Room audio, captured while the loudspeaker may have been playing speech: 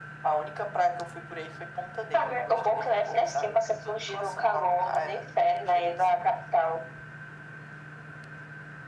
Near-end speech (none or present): none